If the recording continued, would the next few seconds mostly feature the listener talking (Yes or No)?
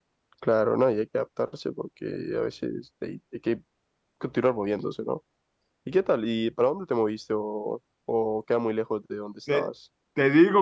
Yes